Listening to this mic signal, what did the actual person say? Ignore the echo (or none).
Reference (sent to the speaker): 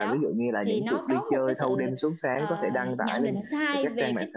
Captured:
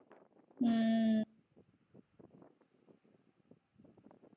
ừ